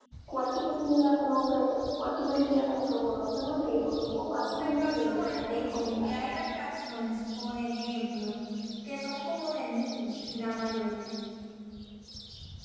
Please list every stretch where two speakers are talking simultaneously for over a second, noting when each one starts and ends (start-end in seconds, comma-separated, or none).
4.5-6.1